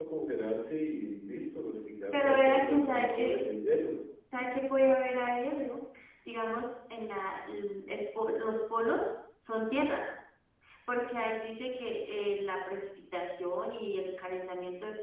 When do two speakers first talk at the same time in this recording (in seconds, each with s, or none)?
2.1 s